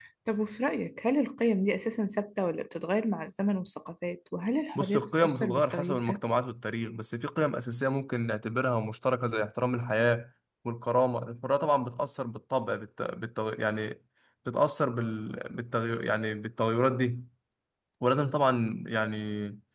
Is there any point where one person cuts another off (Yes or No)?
Yes